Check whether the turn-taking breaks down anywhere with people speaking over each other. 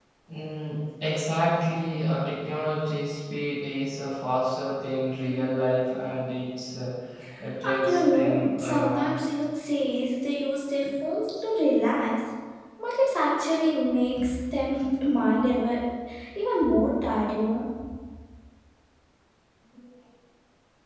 Yes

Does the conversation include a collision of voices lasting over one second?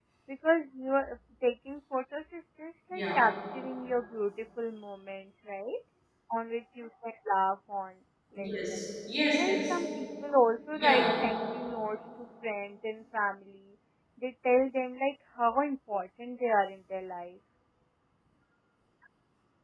No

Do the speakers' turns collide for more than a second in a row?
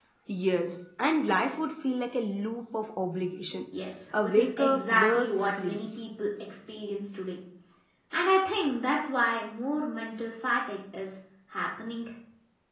Yes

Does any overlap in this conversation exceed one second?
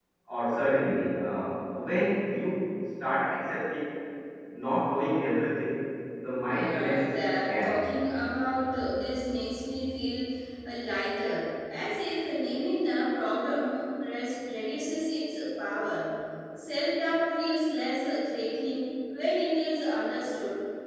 Yes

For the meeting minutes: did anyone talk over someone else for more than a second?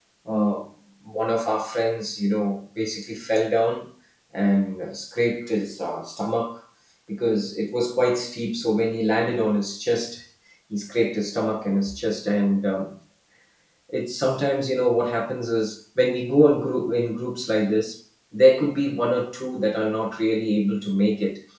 No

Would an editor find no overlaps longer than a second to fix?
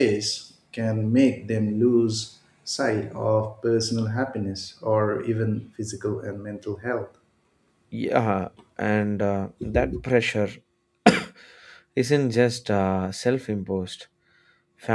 Yes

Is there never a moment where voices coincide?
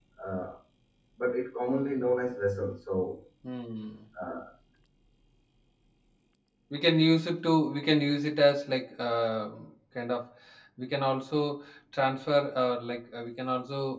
Yes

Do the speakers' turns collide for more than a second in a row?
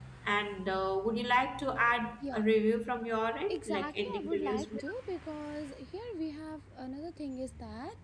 Yes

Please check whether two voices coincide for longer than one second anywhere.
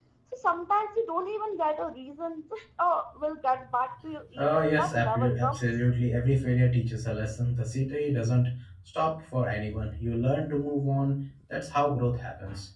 Yes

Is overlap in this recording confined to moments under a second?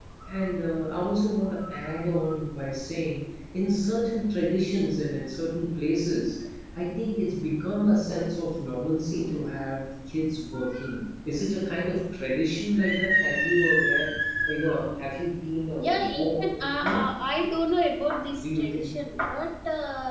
No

